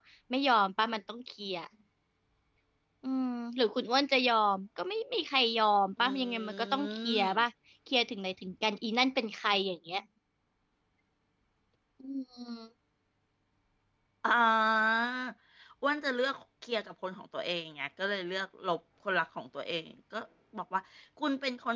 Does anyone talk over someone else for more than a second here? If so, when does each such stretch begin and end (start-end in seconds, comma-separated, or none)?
6.0-7.4